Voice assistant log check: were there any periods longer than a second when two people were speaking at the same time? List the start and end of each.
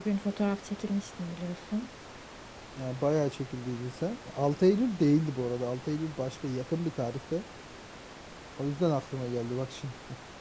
none

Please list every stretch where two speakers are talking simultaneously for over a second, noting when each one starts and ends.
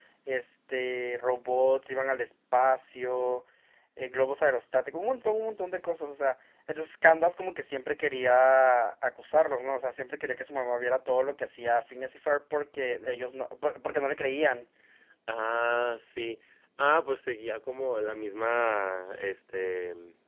none

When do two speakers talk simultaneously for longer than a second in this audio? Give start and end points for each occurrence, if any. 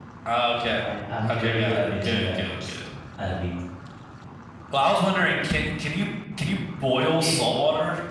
1.3-2.8

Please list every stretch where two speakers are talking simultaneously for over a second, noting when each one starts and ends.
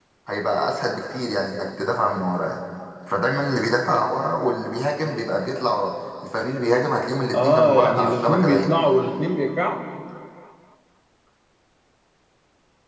7.3-8.8

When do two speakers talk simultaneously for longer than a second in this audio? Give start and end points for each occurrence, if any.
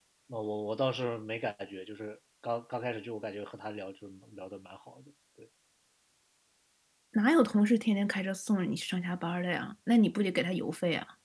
none

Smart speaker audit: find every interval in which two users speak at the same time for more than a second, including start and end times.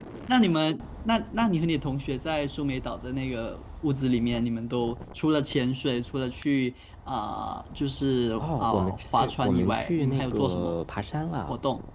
8.4-10.8

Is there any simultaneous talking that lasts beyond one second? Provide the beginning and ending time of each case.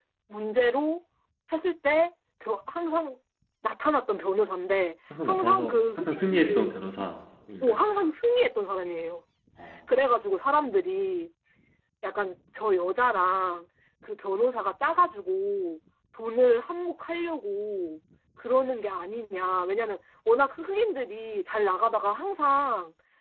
5.2-7.1

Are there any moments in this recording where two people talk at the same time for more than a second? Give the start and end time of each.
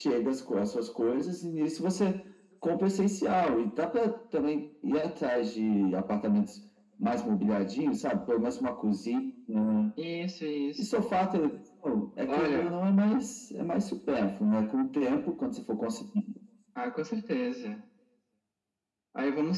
none

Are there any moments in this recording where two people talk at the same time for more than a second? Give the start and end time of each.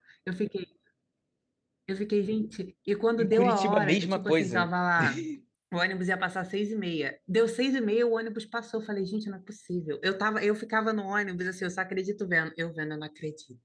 3.2-4.7

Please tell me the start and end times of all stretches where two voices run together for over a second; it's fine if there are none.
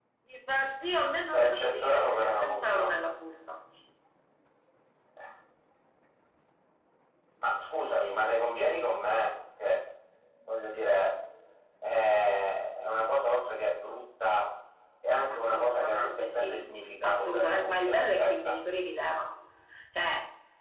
1.3-2.9, 15.3-16.6, 17.0-18.5

